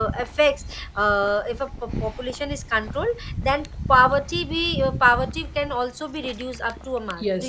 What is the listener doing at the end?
taking over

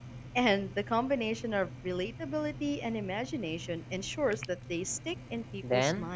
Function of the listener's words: taking over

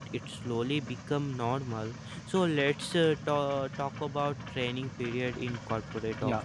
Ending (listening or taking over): taking over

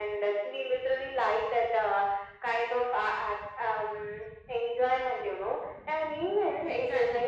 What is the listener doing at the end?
taking over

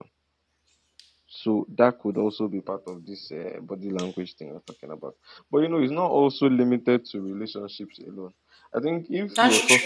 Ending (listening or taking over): listening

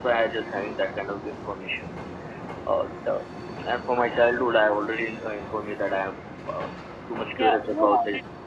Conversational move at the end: taking over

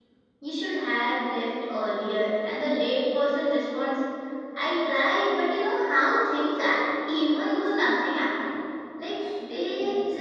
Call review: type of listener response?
listening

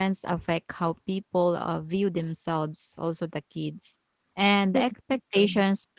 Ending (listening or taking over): listening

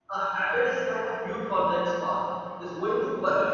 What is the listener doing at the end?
listening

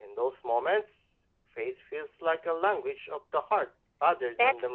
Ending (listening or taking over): taking over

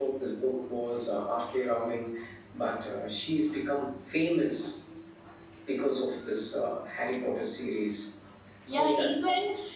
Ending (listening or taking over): taking over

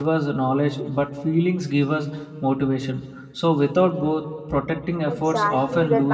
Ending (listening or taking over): taking over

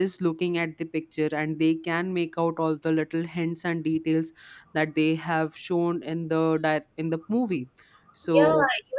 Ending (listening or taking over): taking over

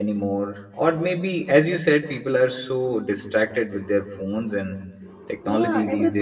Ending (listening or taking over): taking over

